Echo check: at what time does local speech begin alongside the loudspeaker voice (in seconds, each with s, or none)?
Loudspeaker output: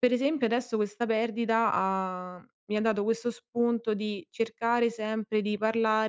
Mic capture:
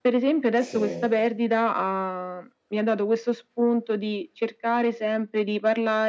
0.5 s